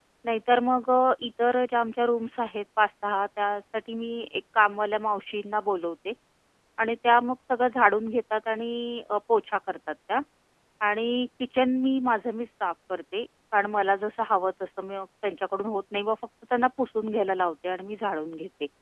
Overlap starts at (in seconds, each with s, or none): none